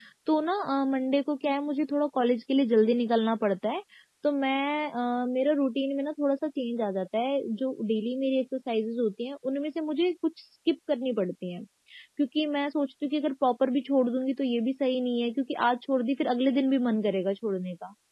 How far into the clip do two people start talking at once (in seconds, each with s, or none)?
none